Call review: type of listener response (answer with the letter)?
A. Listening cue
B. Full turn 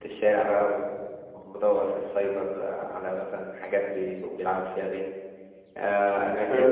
A